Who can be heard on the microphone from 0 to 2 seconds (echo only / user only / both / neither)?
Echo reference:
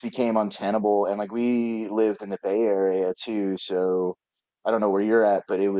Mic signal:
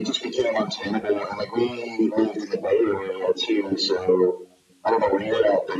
echo only